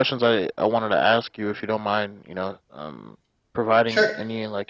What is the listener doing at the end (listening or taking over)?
listening